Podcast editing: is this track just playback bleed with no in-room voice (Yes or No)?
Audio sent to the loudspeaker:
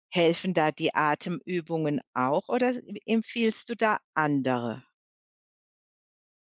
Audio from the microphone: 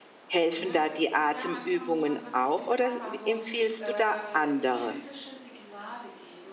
No